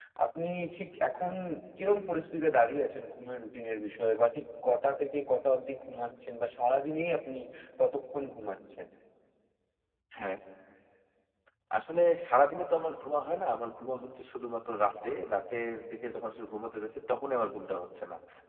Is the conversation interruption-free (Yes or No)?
Yes